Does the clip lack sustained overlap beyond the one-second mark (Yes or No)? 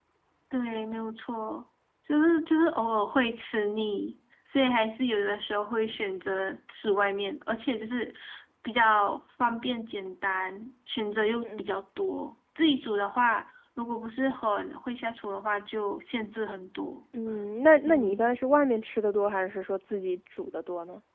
Yes